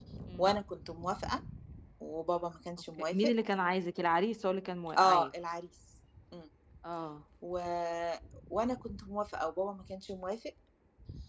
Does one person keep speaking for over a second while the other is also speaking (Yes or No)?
No